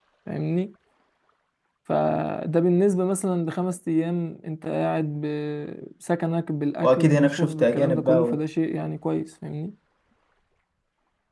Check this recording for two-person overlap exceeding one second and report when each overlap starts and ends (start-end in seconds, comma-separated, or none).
6.8-8.4